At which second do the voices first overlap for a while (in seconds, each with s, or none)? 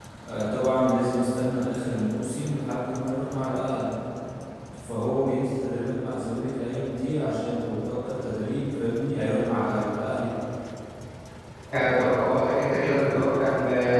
none